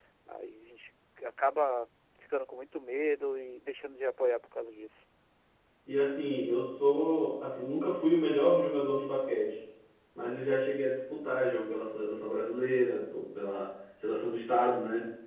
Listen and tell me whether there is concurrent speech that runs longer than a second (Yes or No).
No